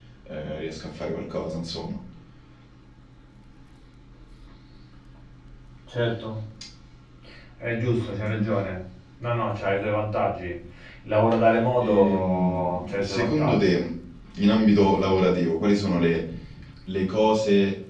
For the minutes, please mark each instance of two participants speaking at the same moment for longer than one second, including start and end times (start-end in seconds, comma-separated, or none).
11.8-13.8